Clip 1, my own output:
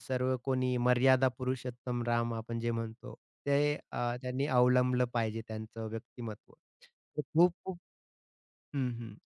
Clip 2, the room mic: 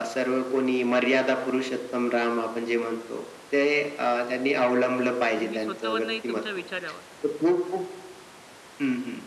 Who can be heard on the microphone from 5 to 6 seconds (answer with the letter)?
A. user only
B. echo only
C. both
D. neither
C